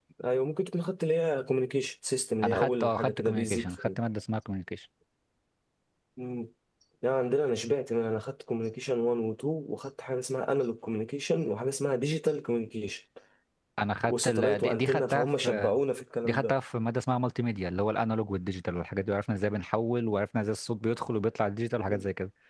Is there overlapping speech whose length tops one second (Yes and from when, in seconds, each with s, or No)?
Yes, from 2.4 s